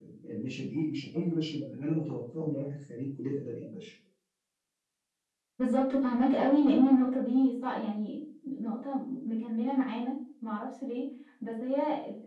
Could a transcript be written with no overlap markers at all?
Yes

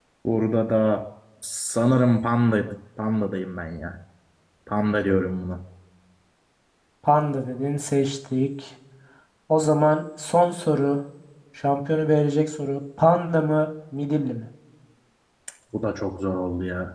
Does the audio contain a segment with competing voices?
No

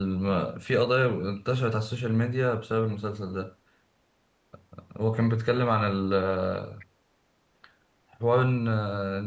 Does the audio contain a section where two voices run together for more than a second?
No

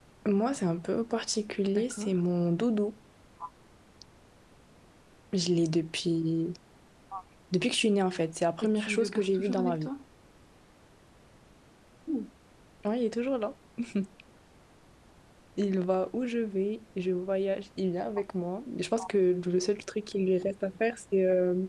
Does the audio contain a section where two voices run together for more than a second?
Yes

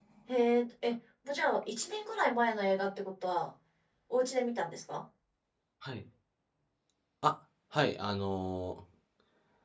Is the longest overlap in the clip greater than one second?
No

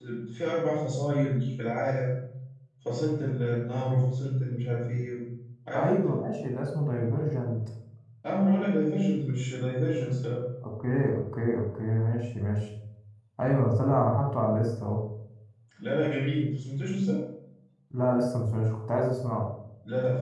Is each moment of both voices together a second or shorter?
Yes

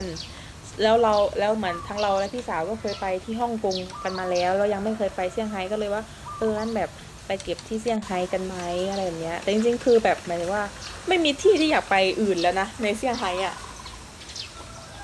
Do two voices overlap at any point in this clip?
No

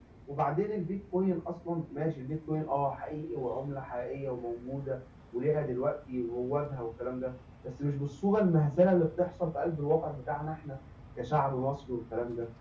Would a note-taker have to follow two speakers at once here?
No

